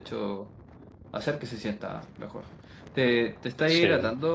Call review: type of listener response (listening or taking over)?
listening